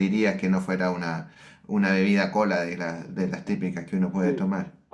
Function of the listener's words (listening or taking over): taking over